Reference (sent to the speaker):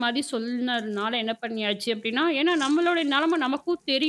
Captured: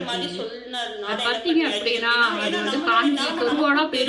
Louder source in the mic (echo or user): user